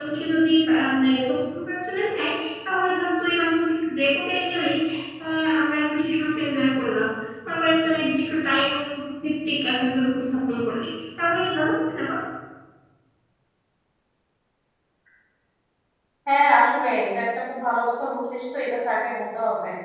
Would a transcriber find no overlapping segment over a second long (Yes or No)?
Yes